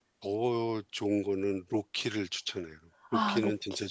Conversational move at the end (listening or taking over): taking over